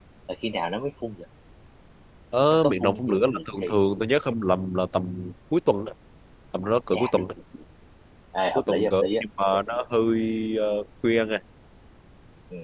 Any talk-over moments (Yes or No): Yes